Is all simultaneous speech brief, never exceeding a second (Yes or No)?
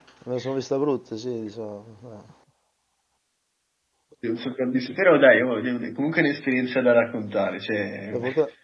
Yes